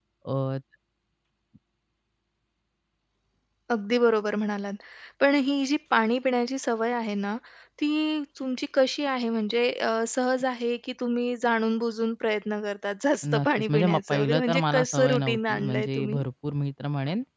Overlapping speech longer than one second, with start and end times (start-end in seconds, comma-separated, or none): 13.2-16.2